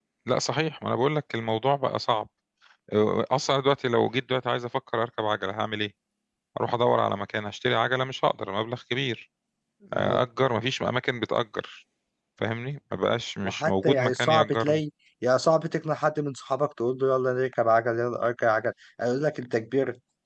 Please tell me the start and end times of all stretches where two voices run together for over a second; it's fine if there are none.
13.4-14.8

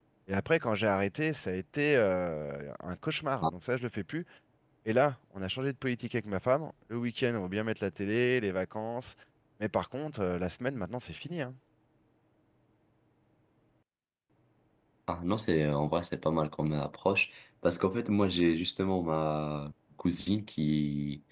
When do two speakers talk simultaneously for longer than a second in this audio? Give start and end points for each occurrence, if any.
none

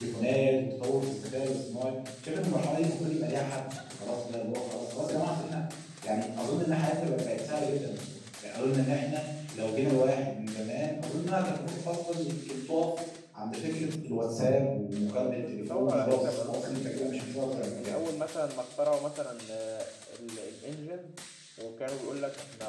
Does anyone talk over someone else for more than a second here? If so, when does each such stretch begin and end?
15.5-17.1

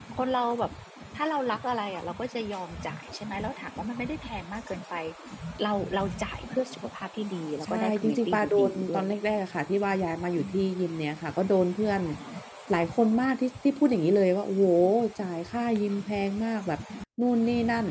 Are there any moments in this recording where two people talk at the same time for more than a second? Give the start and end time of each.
7.6-9.2

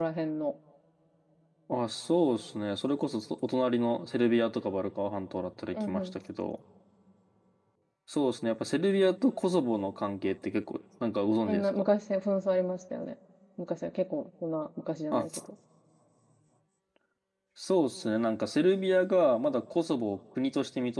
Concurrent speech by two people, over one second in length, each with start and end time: none

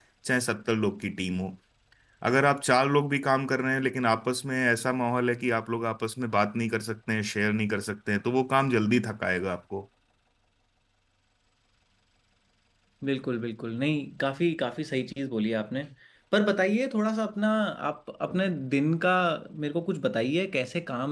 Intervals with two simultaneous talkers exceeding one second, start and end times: none

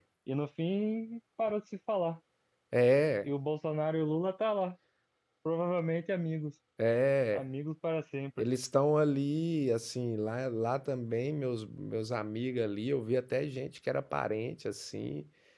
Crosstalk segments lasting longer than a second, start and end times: none

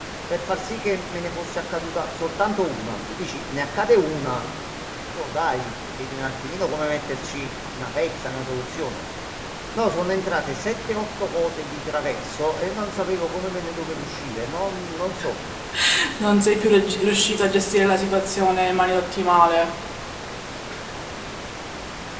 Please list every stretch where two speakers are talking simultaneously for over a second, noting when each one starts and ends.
none

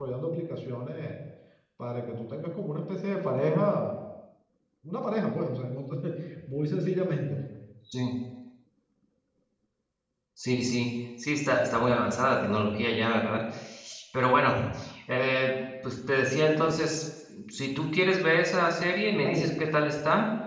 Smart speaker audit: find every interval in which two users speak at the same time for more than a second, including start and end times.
none

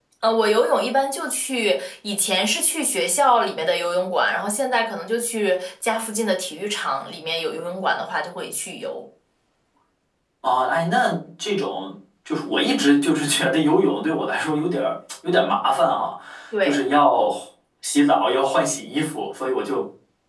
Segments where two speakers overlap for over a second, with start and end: none

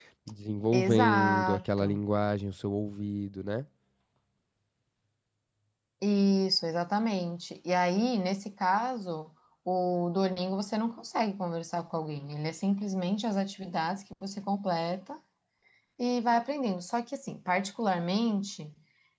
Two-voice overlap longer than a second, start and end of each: 0.7-2.0

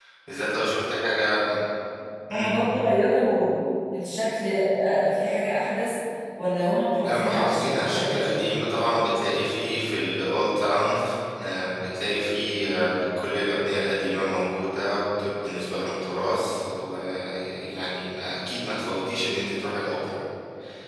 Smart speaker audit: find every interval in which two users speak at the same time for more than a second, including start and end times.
7.0-8.5

